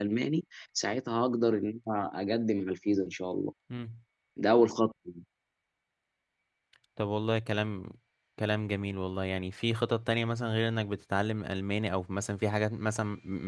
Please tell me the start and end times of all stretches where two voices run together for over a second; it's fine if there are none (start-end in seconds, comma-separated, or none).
none